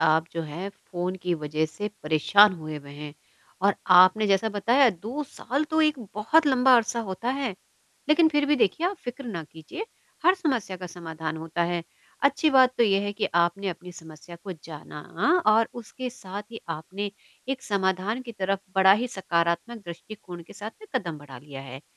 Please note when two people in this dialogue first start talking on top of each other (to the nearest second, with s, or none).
none